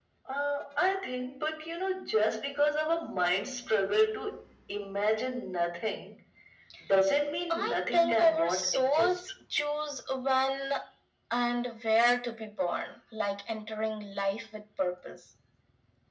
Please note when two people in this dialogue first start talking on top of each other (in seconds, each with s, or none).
7.5 s